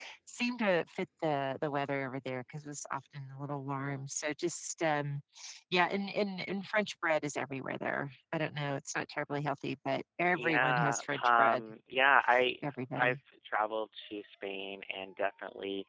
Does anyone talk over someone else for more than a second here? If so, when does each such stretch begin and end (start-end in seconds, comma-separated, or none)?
10.3-11.6